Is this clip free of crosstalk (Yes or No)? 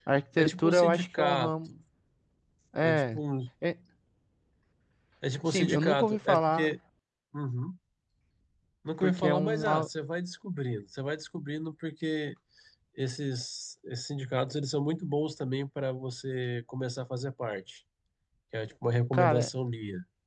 No